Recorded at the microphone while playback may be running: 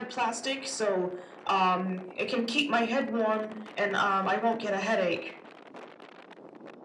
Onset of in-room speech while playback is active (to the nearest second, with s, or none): none